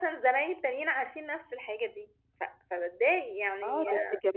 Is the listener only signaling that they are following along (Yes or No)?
No